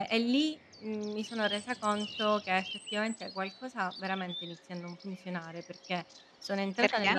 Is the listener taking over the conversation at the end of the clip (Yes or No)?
No